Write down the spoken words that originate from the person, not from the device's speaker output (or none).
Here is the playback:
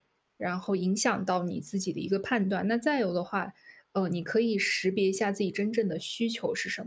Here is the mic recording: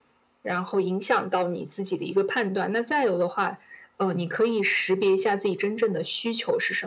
none